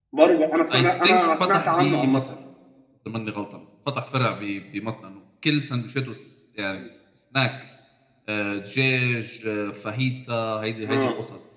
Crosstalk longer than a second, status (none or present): present